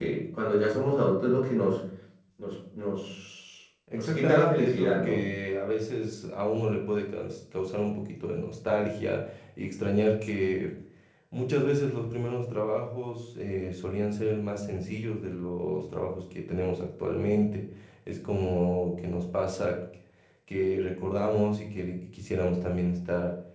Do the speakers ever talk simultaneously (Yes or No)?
Yes